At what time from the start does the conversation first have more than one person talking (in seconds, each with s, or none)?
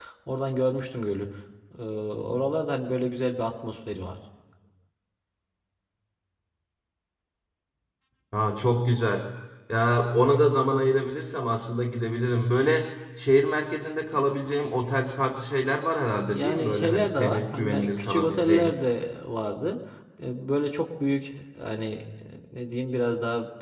16.2 s